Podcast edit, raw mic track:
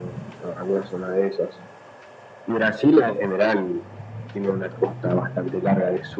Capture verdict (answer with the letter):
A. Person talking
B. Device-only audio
B